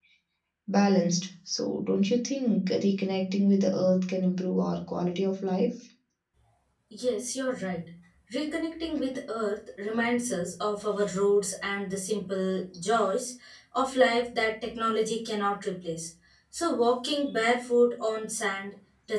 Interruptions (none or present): none